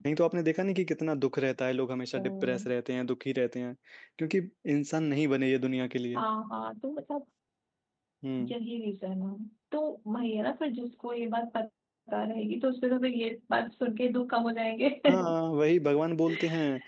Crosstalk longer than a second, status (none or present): none